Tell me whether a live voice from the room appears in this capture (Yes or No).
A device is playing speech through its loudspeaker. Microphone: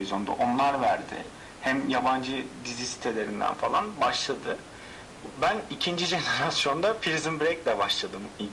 No